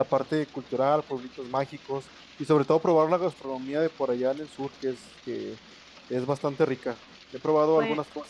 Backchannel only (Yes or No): Yes